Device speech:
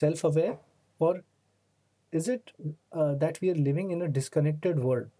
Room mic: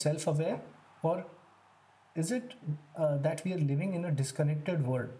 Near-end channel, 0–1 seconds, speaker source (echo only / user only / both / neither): echo only